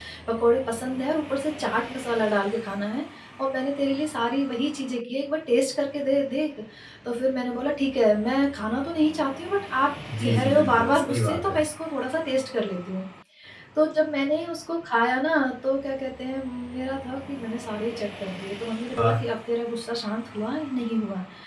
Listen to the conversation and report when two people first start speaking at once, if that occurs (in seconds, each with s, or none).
10.0 s